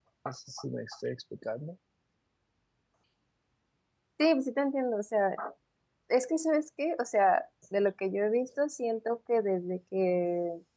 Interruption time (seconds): none

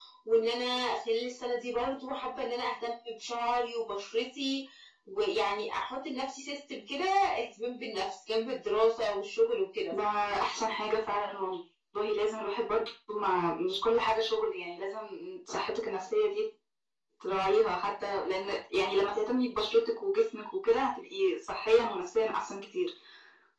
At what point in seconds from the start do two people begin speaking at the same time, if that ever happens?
none

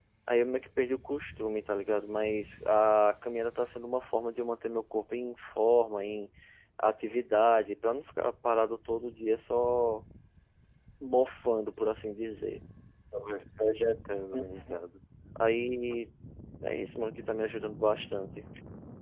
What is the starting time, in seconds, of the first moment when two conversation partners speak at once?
none

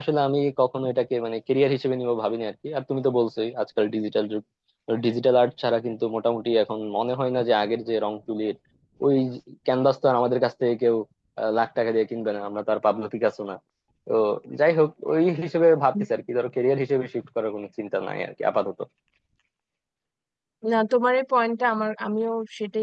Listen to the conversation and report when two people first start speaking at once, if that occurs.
none

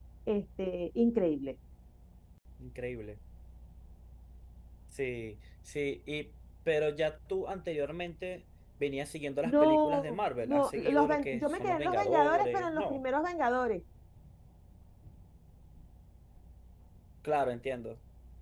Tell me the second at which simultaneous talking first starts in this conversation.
9.4 s

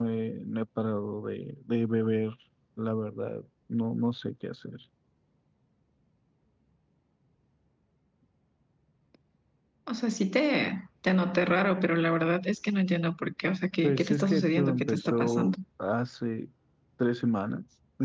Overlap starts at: 13.8 s

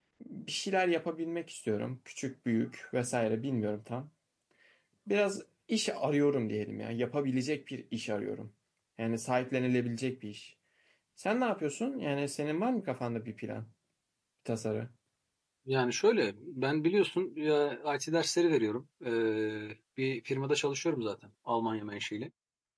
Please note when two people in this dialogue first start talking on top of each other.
none

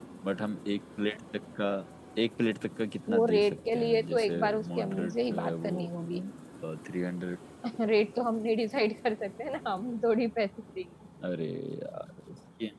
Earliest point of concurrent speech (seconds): 3.1 s

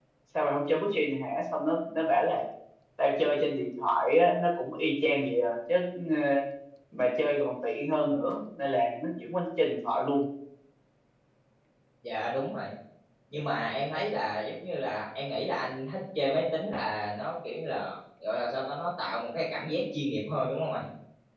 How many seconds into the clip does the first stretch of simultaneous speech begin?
none

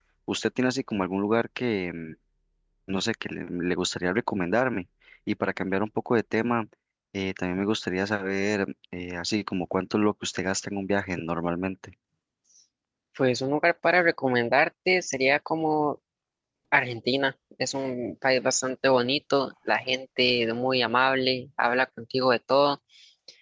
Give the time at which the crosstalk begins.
none

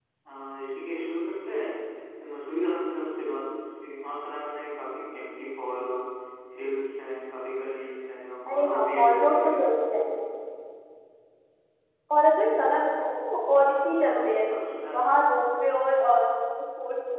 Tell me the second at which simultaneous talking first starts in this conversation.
8.5 s

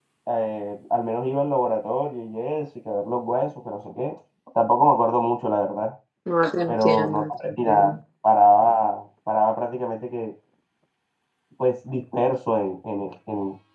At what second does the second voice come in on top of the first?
6.7 s

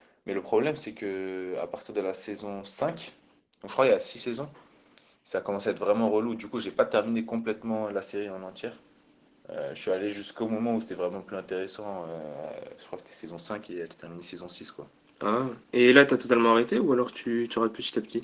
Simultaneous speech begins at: none

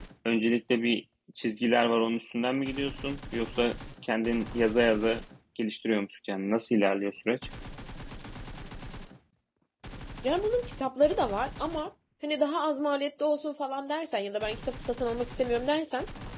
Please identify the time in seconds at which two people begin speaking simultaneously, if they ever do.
none

